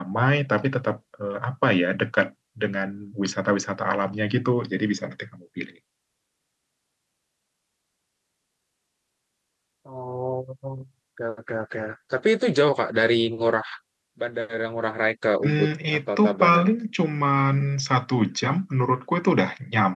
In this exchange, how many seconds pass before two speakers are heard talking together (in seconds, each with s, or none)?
15.4 s